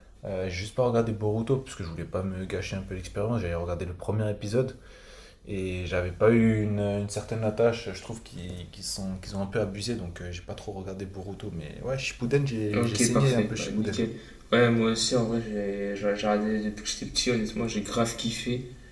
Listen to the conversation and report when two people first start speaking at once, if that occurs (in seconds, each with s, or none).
12.7 s